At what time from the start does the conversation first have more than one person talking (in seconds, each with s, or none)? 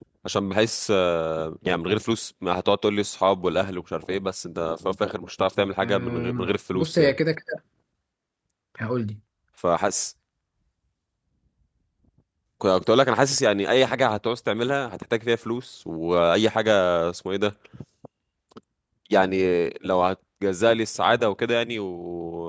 5.8 s